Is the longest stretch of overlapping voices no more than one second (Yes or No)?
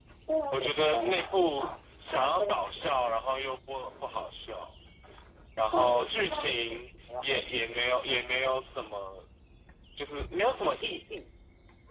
No